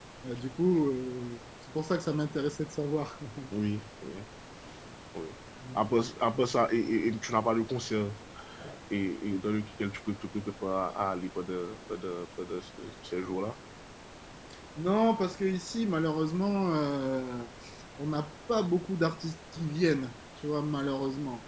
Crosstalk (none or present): none